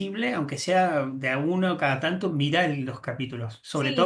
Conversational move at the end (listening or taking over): listening